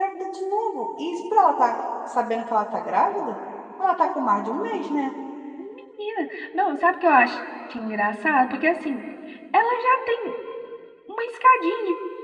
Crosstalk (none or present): none